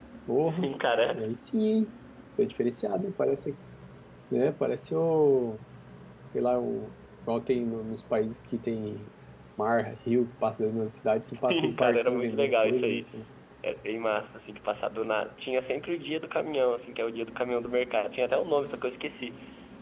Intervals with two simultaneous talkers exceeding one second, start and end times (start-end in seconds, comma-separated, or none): 11.5-13.0